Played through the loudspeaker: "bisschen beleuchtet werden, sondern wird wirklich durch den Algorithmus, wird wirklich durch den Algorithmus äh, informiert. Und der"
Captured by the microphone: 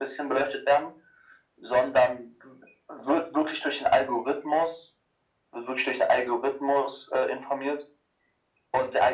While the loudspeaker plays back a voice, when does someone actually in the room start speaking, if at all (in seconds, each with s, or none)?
none